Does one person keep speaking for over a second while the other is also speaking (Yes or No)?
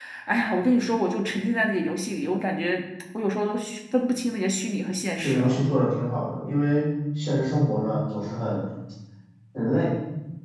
No